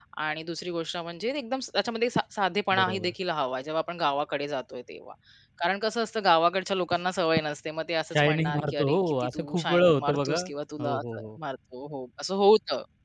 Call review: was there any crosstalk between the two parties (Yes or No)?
Yes